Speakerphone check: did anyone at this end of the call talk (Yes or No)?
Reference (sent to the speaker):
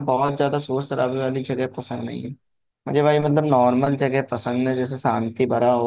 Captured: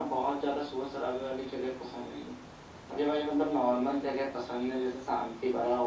No